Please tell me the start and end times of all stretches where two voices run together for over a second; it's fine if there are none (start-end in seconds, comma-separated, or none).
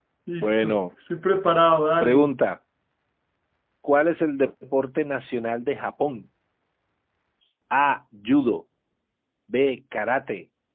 none